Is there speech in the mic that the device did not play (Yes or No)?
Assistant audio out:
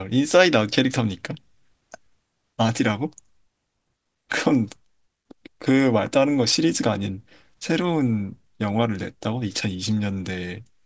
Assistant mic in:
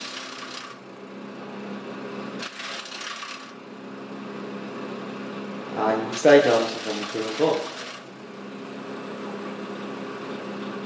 Yes